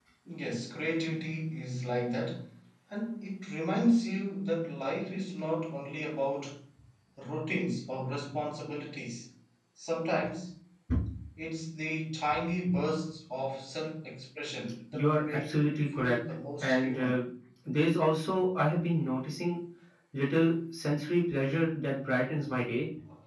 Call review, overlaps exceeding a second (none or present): present